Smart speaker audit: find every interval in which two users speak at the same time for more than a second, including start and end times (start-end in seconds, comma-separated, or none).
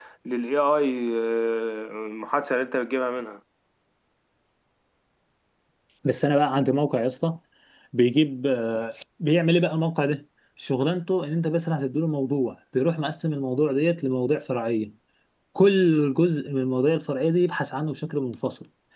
none